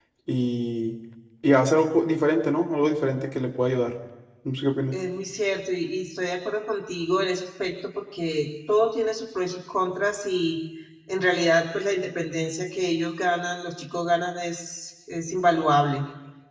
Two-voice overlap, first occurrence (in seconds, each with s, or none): none